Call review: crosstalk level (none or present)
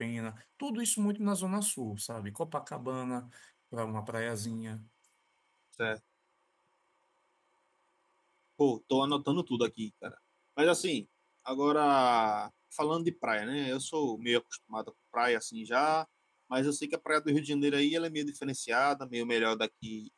none